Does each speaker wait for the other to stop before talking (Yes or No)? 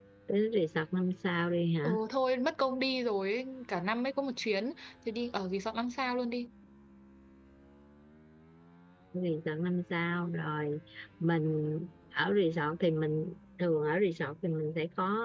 Yes